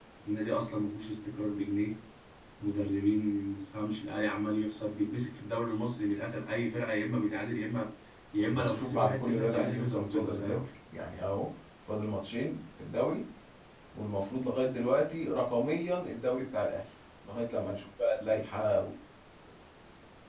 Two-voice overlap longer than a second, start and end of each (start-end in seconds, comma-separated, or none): 8.5-10.6